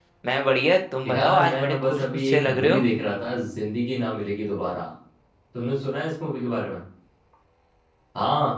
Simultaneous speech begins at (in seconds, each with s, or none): 1.1 s